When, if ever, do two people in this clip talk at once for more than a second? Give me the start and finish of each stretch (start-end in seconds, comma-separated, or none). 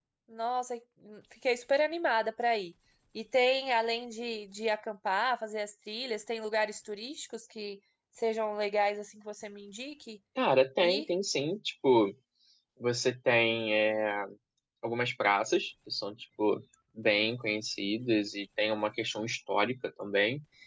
none